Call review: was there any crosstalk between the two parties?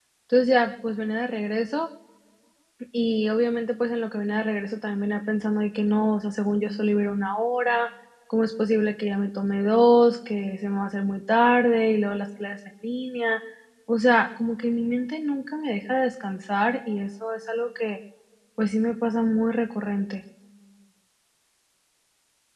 No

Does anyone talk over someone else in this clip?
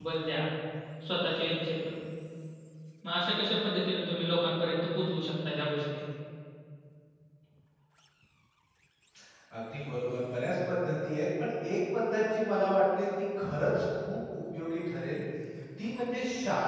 No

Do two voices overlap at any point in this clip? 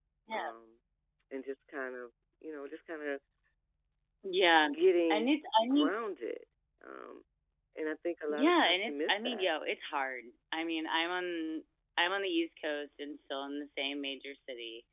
Yes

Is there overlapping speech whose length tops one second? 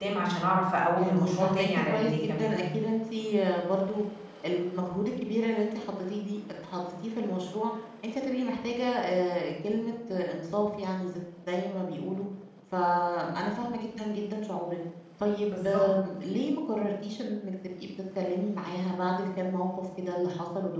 Yes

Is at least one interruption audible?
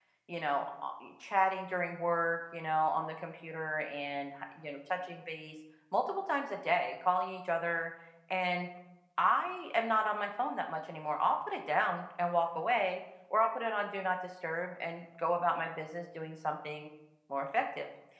No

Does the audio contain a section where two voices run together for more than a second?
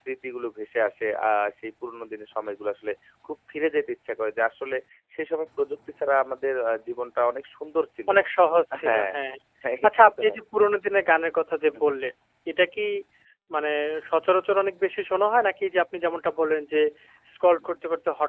No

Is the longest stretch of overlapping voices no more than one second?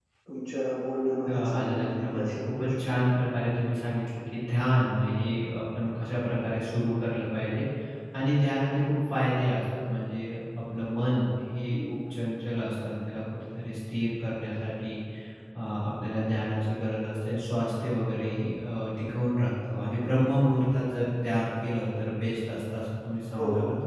No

